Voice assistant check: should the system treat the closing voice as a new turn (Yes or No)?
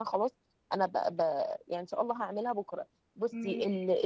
No